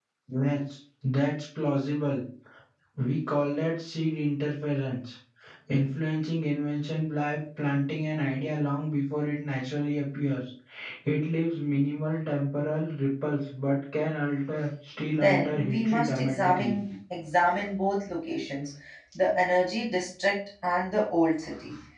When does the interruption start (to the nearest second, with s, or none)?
15 s